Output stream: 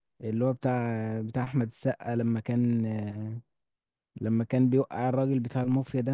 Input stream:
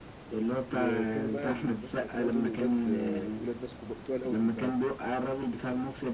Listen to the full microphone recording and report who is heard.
both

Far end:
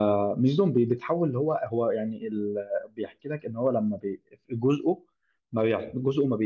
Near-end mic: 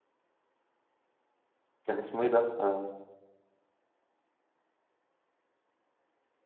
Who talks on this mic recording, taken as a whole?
user only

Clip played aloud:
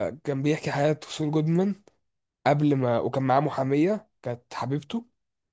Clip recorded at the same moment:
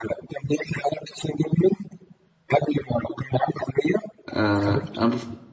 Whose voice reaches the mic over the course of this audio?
both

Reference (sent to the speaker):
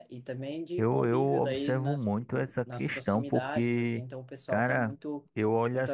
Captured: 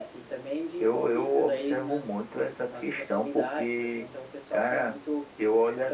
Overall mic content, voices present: echo only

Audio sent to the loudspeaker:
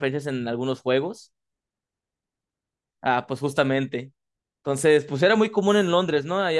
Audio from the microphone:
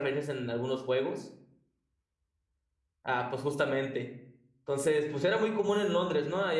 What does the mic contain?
echo only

